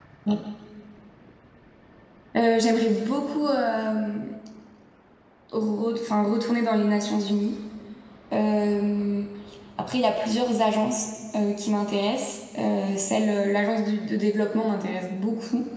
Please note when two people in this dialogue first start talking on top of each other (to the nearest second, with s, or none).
none